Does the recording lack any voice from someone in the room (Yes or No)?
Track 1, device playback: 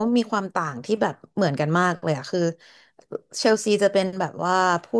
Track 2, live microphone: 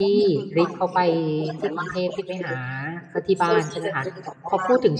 No